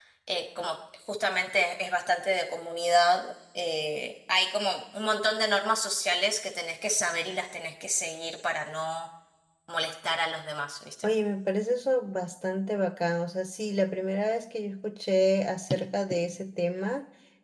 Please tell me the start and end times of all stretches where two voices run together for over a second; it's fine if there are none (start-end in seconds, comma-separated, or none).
none